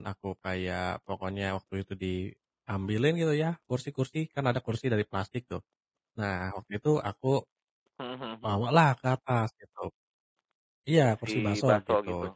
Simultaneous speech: Yes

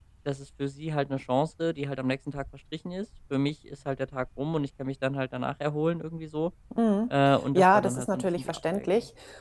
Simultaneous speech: Yes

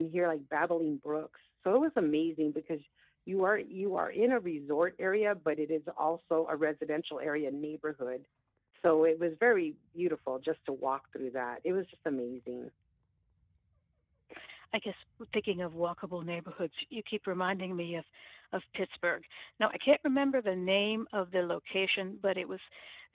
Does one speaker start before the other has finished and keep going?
No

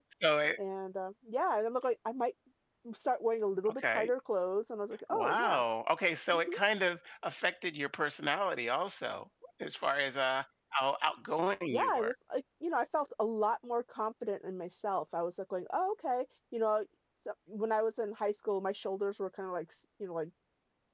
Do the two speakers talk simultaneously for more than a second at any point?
No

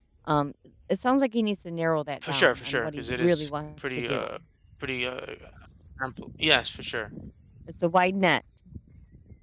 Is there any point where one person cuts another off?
Yes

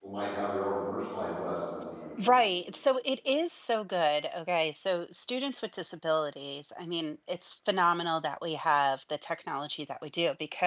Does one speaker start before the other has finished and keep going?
No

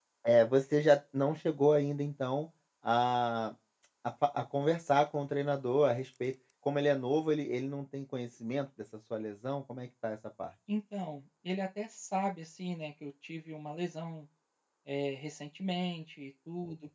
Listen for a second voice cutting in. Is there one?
No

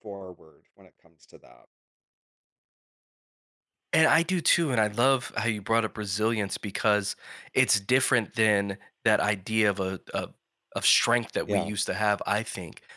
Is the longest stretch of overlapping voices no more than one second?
Yes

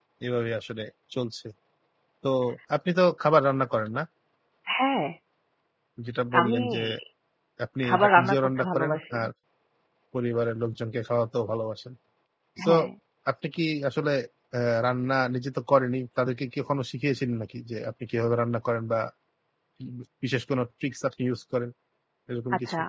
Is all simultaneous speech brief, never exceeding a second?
No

